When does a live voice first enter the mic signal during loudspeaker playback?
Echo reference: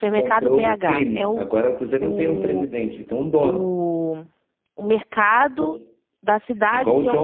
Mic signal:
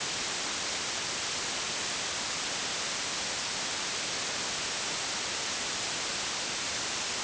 none

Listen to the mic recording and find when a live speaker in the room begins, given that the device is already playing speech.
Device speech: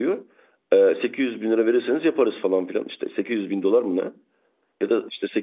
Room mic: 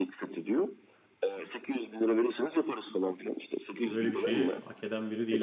3.9 s

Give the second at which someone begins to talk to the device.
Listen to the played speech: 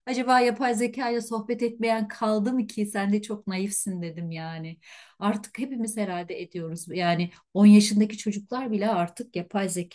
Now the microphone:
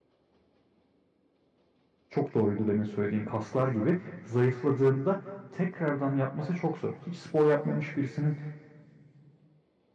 2.1 s

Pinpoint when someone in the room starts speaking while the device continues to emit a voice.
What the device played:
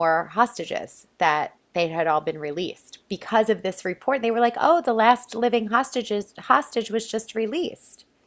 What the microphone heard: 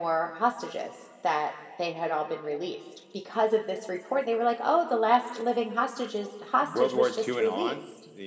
6.6 s

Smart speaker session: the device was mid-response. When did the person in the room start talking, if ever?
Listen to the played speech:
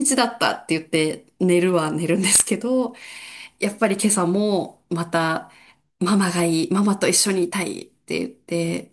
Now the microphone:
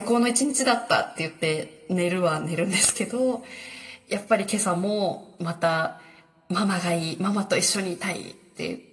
none

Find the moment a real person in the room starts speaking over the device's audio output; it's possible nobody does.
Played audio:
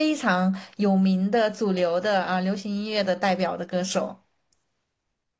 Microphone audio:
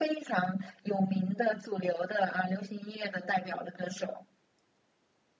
none

